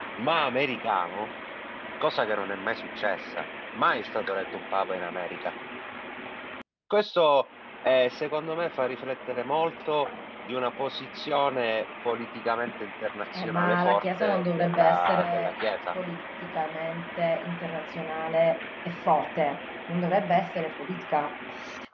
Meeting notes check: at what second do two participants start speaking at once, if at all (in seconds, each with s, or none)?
13.3 s